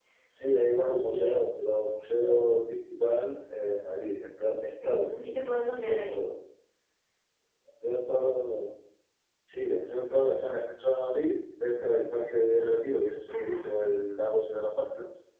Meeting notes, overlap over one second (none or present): none